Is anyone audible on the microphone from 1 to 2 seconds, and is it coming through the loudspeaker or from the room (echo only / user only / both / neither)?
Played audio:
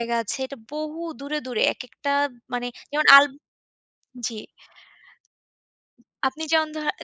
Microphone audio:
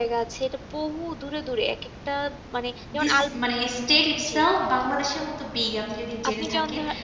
echo only